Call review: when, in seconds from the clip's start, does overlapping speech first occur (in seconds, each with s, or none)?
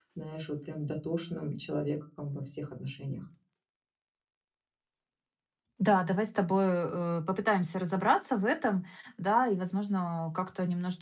none